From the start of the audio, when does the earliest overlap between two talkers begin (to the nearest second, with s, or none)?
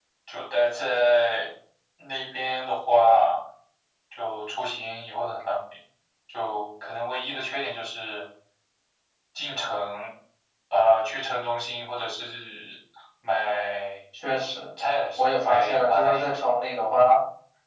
15 s